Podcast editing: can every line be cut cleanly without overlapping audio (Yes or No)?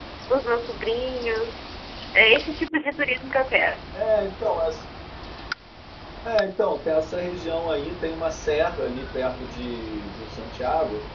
Yes